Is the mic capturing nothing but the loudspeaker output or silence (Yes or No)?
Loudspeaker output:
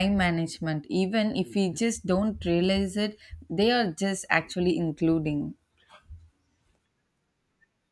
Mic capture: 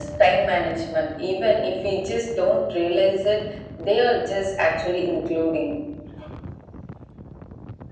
Yes